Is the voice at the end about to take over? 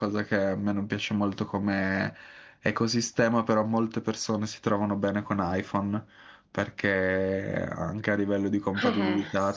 No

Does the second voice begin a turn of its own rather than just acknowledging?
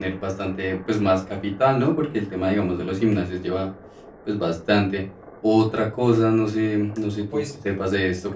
No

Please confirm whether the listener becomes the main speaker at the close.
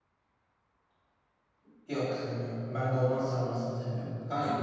No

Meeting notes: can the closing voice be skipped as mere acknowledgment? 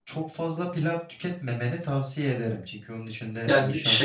No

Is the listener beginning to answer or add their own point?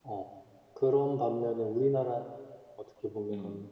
No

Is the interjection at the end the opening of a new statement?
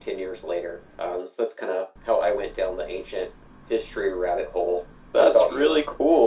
Yes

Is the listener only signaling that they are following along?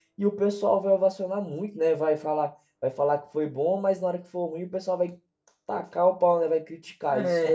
No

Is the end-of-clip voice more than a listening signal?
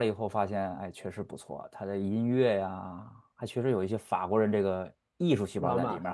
No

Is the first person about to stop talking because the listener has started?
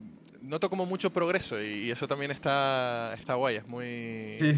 Yes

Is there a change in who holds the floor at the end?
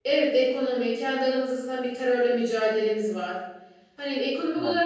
No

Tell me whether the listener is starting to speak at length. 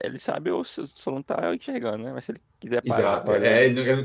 Yes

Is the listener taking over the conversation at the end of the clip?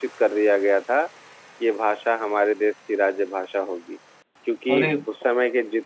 No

